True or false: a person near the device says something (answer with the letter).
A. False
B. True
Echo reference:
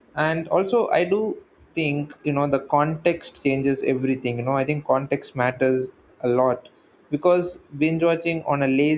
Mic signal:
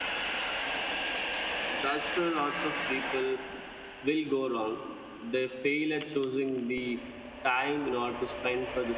B